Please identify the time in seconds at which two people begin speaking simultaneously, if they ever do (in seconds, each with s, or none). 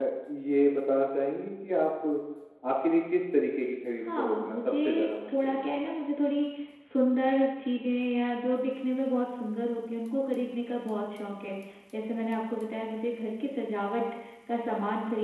4.0 s